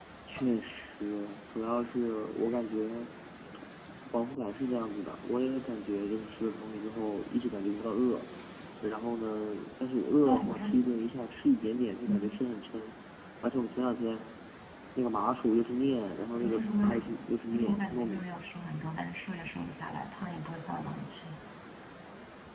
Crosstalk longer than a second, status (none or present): present